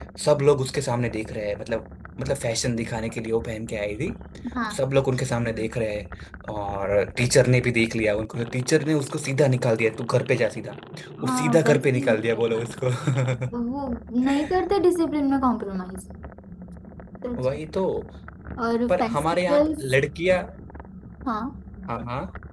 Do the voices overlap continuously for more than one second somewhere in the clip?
Yes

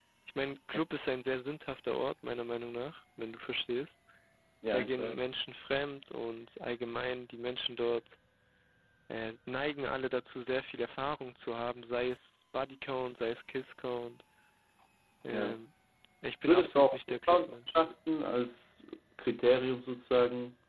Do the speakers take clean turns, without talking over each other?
No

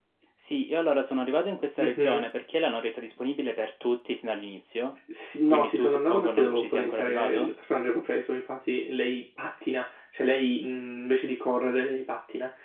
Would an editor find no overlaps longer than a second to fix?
No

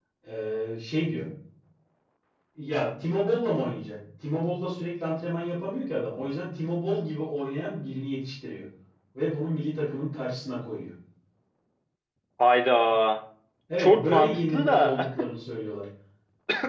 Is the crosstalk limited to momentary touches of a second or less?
No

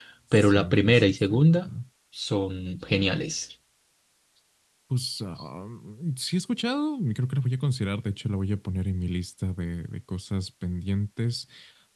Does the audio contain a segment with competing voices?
Yes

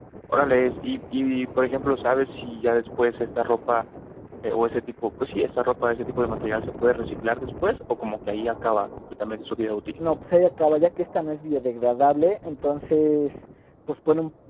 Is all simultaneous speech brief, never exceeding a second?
Yes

